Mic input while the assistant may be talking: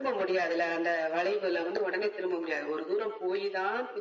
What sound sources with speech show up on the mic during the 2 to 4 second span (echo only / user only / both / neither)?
echo only